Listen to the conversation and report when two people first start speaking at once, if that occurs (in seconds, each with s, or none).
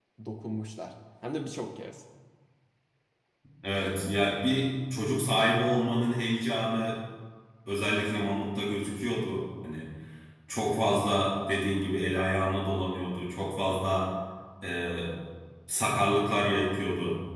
none